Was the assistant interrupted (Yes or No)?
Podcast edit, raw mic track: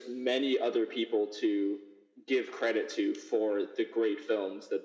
No